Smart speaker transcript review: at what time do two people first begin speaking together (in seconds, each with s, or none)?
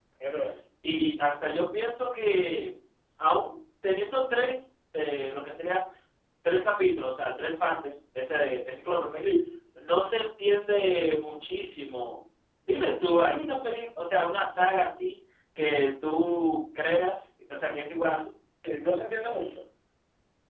none